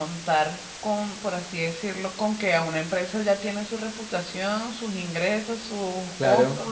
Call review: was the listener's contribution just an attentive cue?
Yes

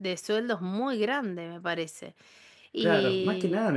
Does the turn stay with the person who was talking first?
No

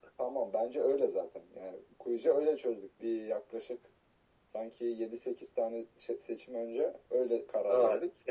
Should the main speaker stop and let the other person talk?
Yes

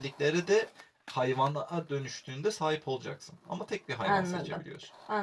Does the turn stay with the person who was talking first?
No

